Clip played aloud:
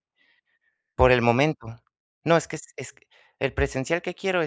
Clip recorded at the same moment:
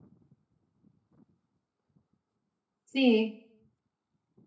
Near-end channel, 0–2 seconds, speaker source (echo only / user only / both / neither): neither